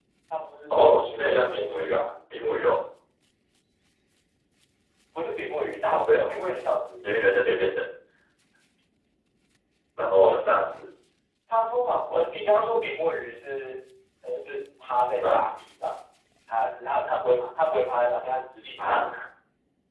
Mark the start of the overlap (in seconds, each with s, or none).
0.8 s